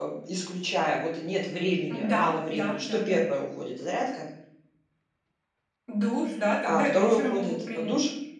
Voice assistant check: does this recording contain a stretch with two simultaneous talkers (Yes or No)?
Yes